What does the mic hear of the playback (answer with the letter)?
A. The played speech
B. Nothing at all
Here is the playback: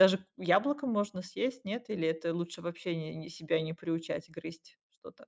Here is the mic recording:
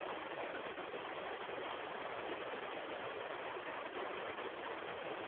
B